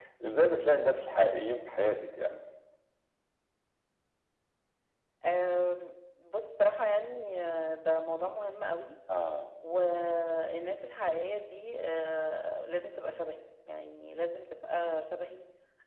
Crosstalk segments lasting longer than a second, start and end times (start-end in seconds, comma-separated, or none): none